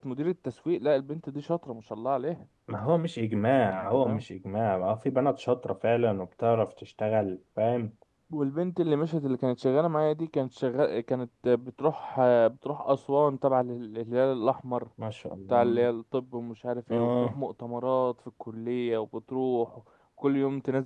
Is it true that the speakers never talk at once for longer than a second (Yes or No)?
Yes